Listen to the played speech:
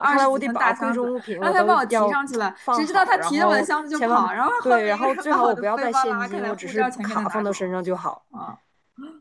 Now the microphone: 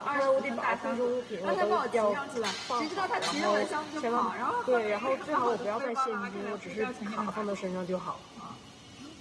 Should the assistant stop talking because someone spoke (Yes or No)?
No